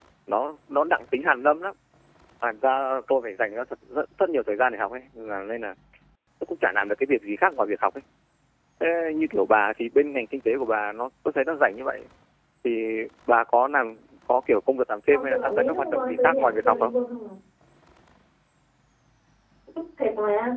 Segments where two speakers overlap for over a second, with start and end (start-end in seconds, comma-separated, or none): 15.1-16.9